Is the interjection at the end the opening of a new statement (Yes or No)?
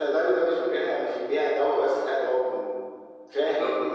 Yes